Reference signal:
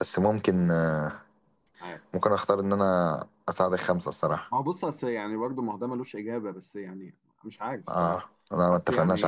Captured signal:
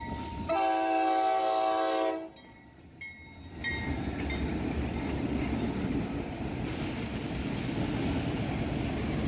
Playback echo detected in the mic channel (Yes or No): No